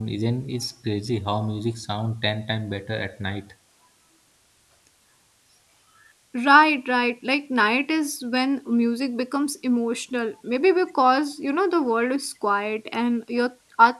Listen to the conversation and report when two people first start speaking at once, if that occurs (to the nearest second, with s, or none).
none